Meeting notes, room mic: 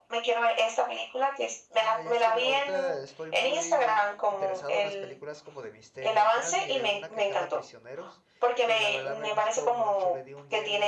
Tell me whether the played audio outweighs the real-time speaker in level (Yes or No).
Yes